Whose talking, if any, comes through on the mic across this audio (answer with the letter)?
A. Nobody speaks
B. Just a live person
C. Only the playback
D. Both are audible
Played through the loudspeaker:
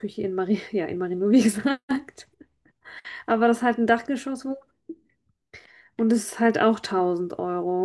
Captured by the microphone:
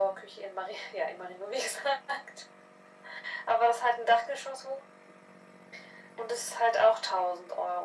C